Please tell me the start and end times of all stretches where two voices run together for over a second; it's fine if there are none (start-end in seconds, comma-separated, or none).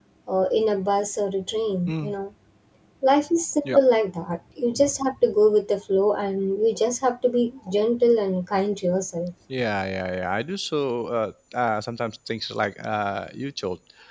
none